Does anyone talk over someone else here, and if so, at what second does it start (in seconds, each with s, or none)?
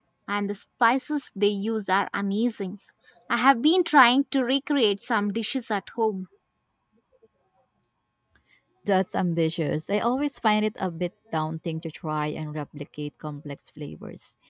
none